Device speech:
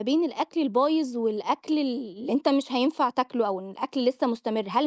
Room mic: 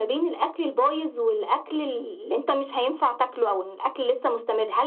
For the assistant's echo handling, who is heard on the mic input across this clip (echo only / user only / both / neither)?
echo only